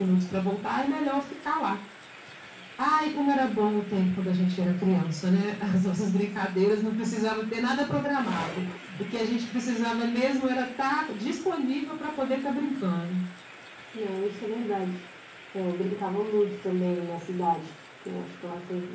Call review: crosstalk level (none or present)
none